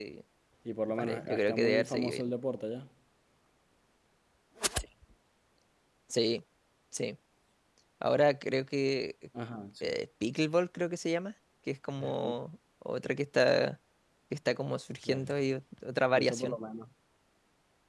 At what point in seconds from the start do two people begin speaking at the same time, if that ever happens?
1 s

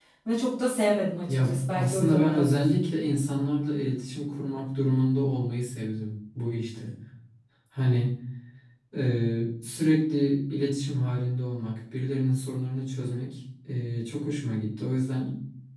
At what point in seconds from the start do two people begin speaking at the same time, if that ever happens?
1 s

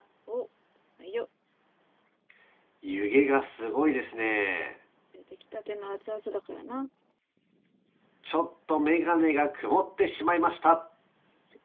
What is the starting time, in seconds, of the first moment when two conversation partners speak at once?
none

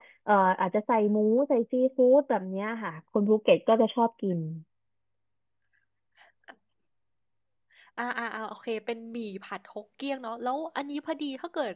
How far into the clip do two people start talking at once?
none

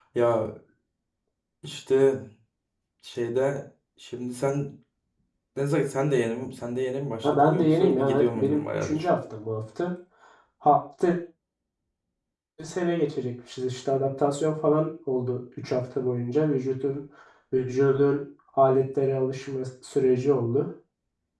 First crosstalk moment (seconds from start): 7 s

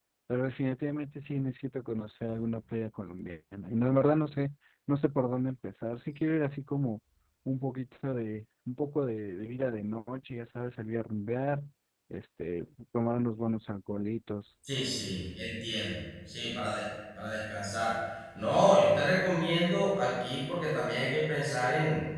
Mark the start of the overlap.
none

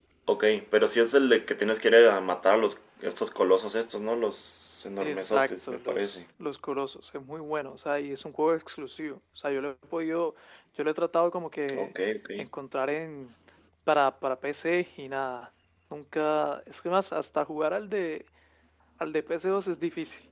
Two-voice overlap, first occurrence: 5 s

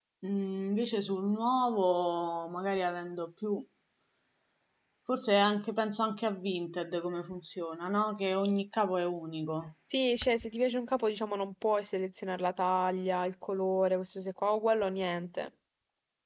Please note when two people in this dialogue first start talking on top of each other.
none

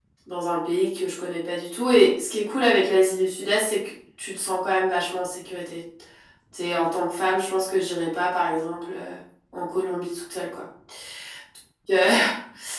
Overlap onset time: none

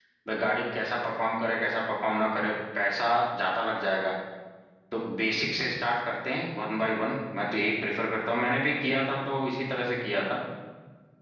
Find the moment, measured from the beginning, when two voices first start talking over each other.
none

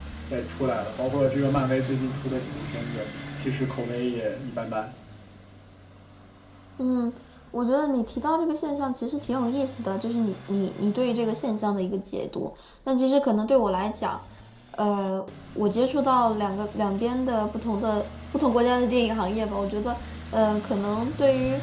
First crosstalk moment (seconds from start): none

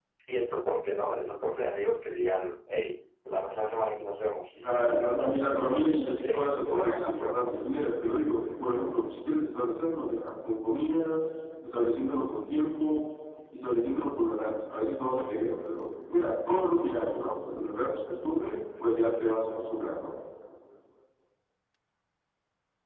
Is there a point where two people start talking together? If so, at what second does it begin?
5 s

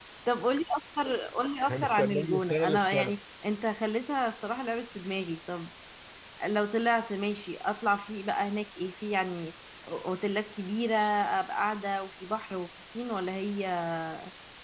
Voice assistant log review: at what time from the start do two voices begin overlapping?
2 s

